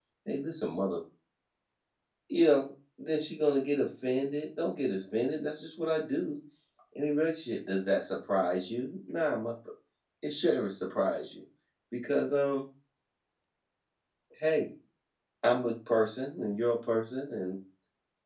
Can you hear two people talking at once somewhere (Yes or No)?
No